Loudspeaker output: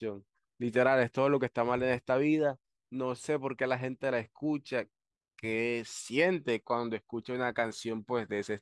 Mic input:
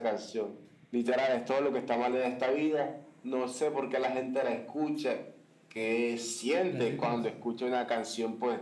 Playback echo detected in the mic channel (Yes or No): Yes